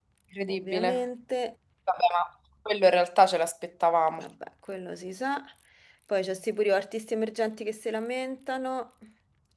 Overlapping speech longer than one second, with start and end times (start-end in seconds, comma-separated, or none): none